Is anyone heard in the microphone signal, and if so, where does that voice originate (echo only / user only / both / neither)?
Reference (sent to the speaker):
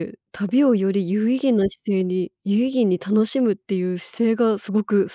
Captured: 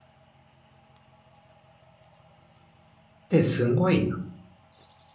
user only